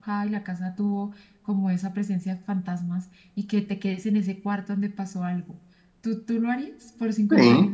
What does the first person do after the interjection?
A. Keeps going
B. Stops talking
B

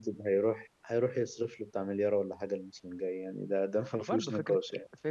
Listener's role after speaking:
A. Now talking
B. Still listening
A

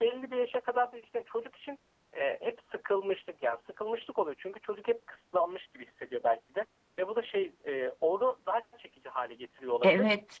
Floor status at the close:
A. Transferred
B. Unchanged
A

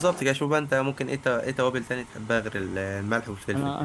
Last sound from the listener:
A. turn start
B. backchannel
A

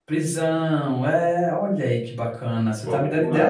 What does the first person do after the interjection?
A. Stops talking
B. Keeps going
A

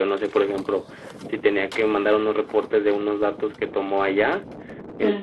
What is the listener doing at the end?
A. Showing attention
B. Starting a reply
A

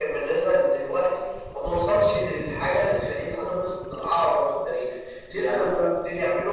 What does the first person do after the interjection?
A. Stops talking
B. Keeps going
B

